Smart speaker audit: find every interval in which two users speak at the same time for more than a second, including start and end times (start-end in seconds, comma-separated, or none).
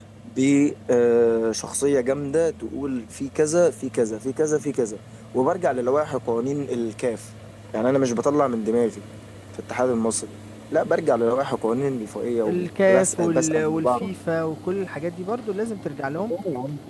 12.4-14.1